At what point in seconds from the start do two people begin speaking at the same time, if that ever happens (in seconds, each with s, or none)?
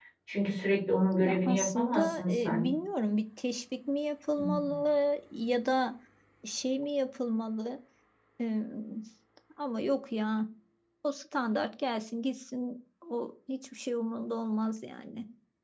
1.2 s